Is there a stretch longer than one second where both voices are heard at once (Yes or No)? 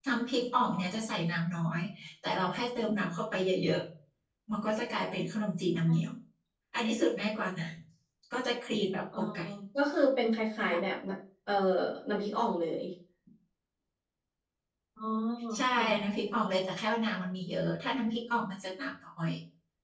No